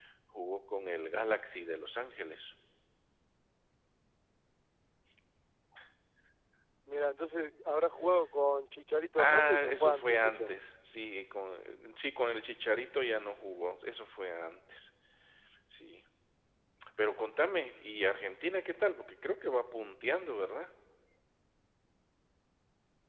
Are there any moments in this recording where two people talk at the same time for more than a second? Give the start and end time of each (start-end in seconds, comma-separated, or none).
9.2-10.5